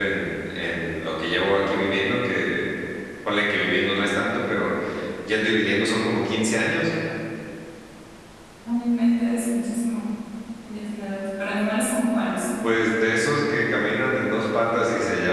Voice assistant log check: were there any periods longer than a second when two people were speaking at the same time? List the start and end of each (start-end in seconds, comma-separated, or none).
none